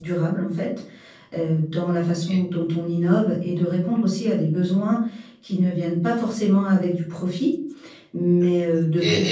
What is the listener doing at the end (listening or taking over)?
taking over